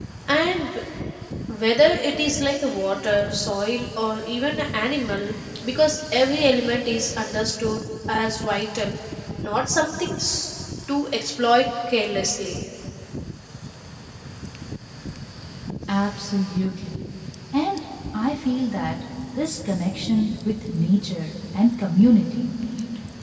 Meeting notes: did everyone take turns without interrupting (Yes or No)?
Yes